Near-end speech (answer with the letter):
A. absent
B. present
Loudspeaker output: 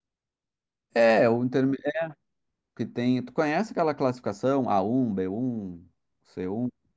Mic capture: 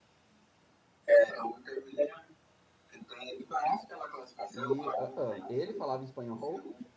B